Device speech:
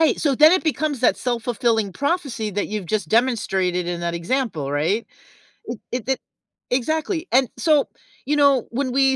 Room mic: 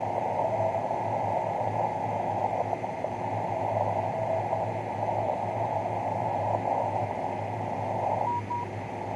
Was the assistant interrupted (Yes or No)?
No